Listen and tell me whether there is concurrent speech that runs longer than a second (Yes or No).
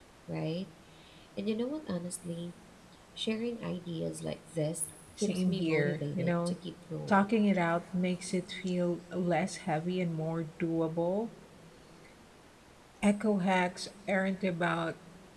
Yes